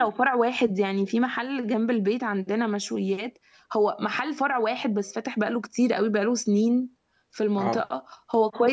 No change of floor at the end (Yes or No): Yes